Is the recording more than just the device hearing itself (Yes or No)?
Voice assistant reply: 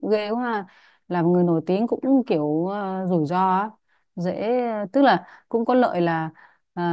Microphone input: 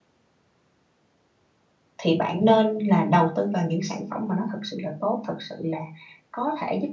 Yes